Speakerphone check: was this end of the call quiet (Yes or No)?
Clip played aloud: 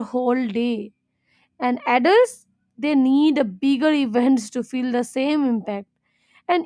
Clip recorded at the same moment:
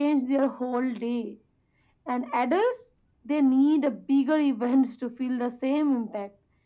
Yes